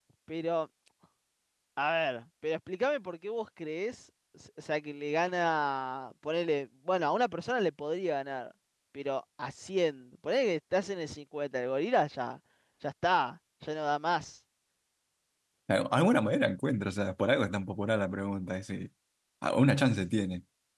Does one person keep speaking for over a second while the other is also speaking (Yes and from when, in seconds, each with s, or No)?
No